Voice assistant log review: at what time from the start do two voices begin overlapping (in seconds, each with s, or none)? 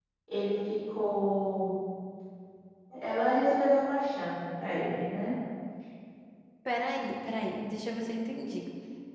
none